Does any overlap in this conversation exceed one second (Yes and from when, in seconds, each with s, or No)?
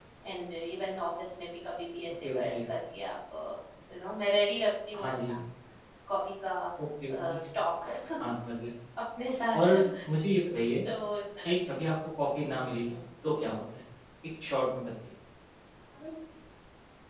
No